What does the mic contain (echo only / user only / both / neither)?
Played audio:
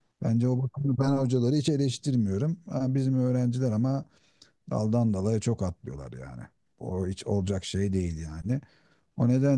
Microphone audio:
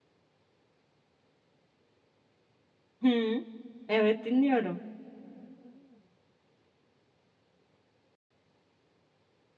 user only